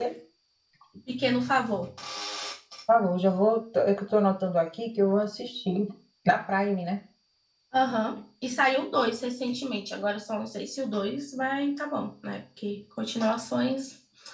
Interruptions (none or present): none